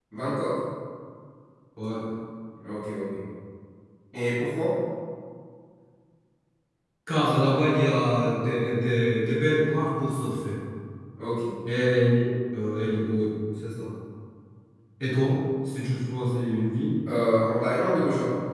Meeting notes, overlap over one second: none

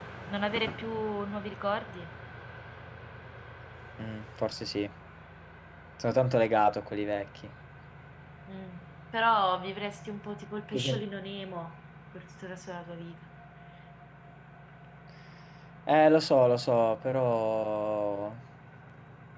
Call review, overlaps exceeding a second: none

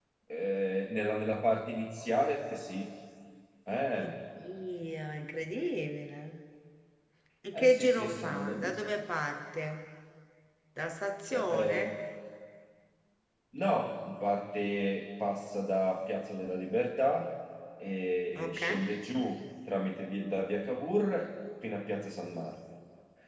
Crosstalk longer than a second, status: present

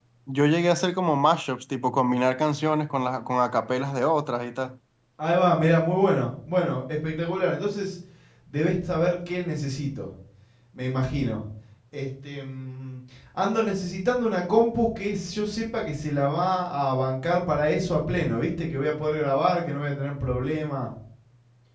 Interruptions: none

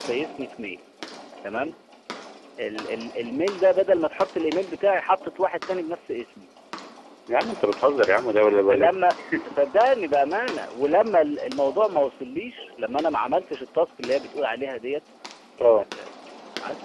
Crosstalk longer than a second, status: none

